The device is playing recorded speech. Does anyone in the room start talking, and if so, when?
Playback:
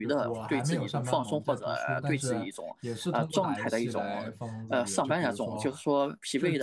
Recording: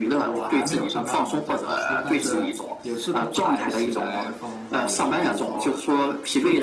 none

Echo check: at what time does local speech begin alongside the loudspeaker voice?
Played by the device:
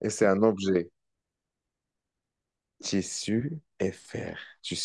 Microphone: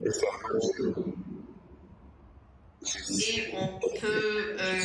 3 s

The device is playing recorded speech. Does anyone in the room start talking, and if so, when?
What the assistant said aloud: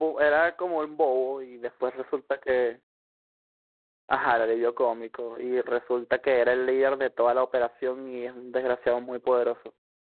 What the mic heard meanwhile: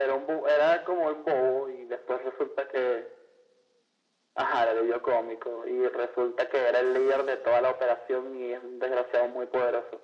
none

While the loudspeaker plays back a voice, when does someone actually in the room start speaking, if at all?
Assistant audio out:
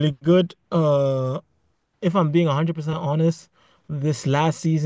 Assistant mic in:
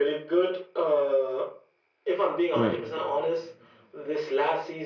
3 s

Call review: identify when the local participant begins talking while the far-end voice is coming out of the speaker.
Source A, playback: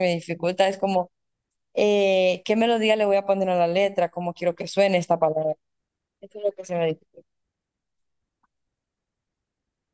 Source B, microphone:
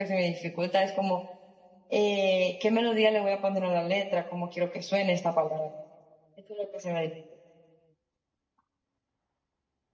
none

